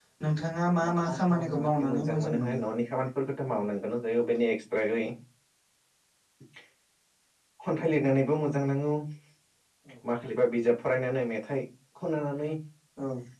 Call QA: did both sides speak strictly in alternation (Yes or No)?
No